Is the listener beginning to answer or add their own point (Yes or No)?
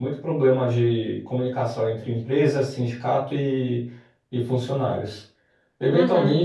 No